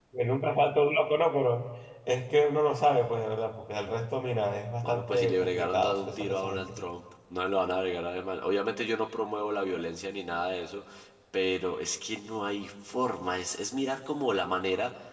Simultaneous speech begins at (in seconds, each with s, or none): 4.8 s